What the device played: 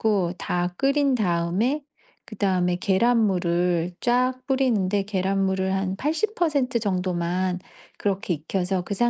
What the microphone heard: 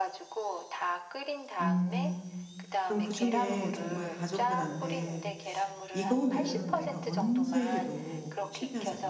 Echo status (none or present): present